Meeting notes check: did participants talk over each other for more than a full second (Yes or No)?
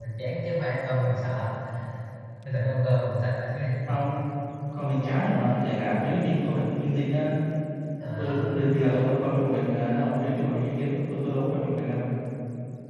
No